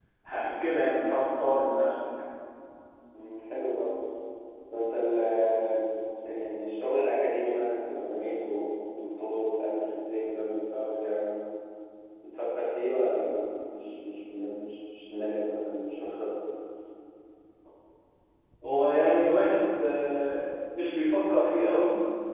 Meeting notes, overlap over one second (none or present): none